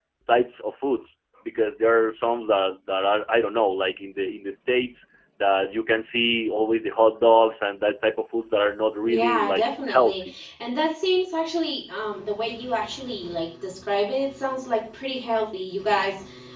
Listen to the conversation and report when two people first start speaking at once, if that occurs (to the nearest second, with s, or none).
9 s